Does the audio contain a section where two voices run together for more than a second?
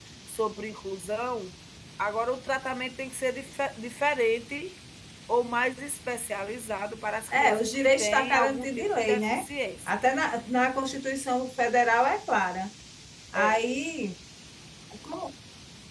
Yes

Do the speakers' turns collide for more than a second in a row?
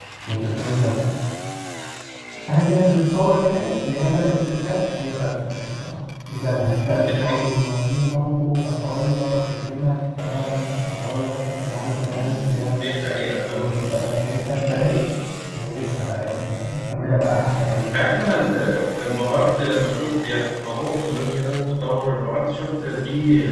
No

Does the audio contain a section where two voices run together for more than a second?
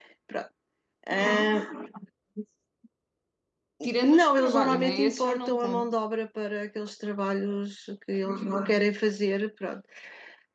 Yes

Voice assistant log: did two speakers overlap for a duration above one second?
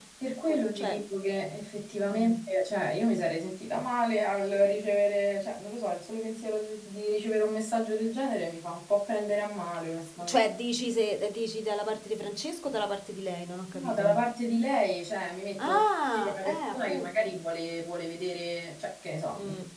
Yes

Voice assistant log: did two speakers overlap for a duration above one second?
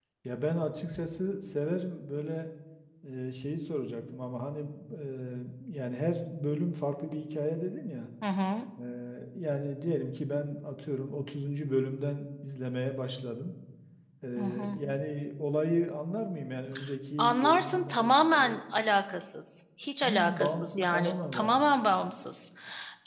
Yes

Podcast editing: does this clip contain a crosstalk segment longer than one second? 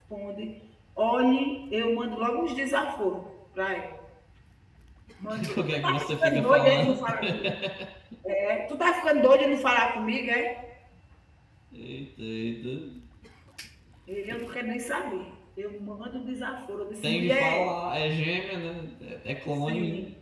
Yes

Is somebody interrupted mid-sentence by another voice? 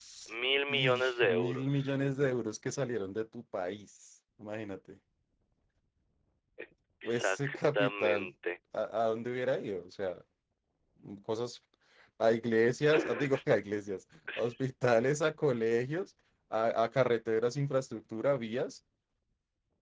Yes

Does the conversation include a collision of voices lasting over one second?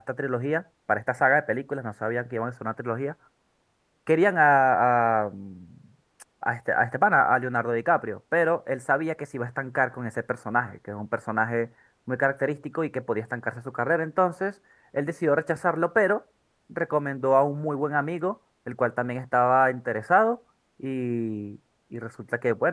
No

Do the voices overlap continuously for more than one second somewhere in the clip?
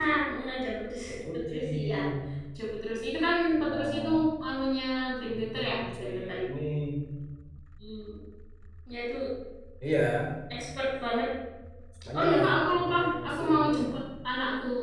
Yes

